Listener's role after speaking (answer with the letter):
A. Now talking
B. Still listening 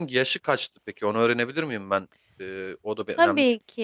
A